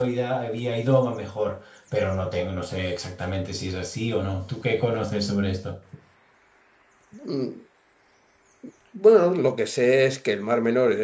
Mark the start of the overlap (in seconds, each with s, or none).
none